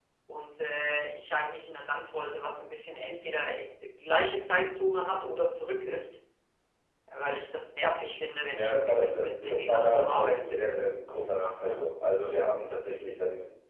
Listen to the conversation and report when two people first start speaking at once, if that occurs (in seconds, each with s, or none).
8.5 s